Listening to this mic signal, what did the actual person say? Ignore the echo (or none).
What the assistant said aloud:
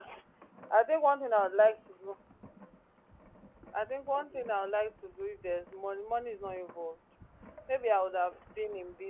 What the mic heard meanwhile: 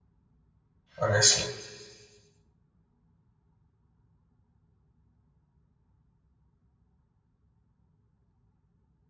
honestly.